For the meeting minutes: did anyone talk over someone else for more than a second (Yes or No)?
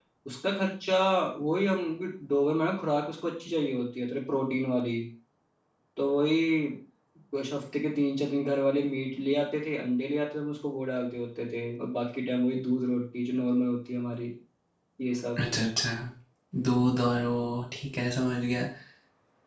No